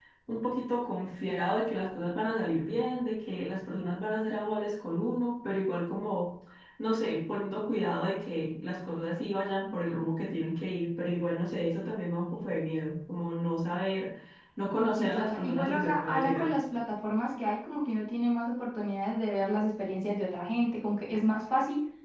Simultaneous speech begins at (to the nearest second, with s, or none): 15 s